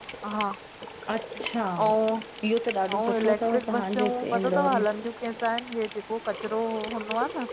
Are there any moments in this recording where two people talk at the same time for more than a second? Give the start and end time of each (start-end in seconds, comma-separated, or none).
3.0-4.8